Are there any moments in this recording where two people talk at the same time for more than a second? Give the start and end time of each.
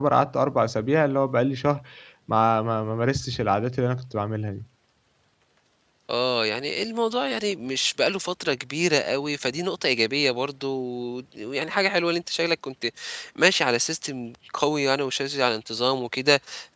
none

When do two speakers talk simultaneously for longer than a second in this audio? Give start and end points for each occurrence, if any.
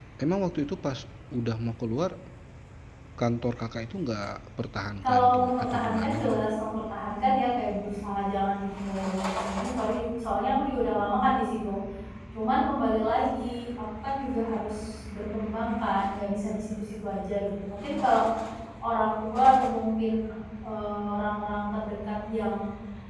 5.0-6.5

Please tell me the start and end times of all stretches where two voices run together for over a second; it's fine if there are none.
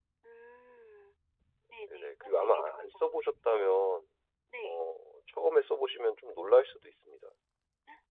1.9-3.2

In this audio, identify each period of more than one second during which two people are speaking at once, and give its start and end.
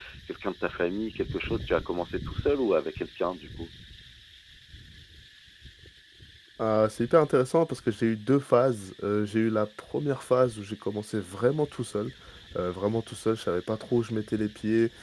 none

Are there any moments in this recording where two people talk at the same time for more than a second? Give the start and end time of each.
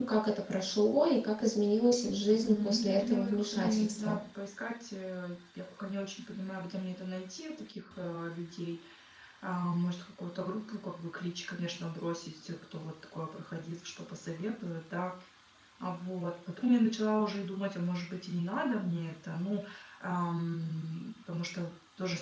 2.3-4.2

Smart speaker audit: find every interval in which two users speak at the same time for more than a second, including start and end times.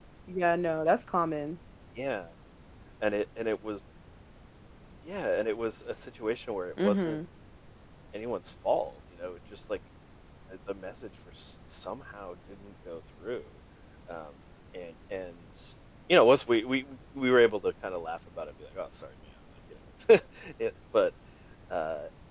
none

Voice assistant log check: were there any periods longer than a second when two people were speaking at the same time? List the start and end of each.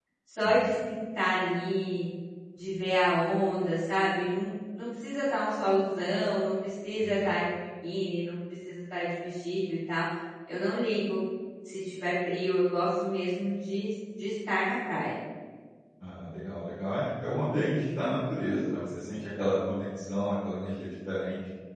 none

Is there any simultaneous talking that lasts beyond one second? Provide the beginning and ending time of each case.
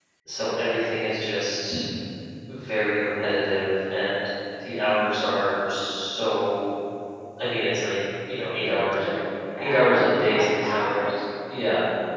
9.6-11.1

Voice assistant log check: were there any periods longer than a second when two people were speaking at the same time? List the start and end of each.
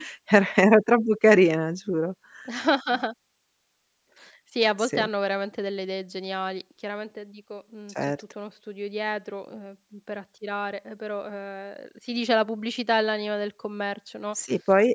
none

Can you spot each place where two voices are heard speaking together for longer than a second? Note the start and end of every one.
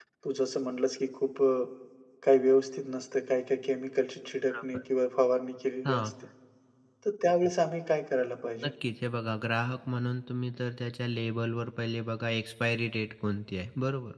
none

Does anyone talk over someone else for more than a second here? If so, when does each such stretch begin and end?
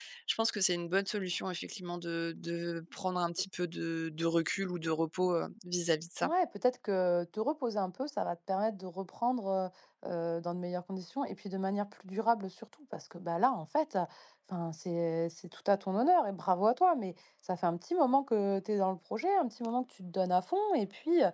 none

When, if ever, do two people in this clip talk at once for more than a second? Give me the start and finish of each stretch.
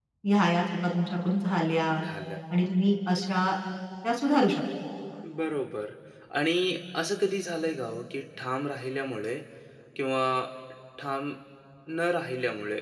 none

